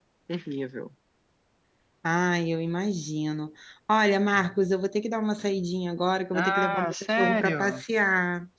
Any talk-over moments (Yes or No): Yes